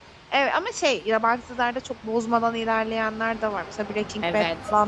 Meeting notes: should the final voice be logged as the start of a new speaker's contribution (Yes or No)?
Yes